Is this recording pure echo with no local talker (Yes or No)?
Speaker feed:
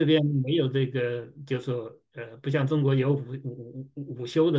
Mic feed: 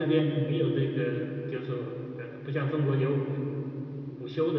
Yes